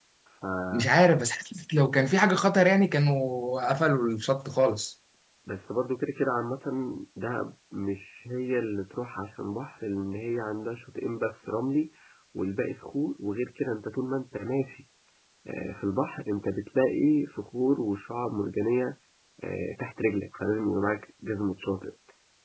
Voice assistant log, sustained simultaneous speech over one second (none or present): none